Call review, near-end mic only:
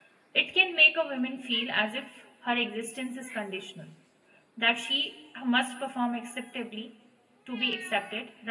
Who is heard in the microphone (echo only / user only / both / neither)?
user only